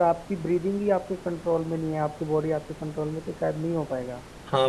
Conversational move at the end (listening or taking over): taking over